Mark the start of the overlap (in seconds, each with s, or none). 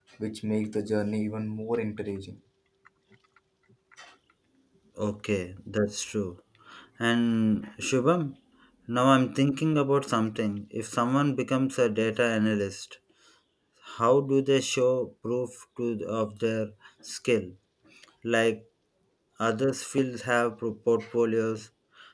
none